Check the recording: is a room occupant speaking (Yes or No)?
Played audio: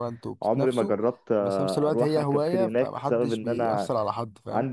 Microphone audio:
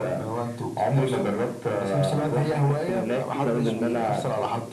Yes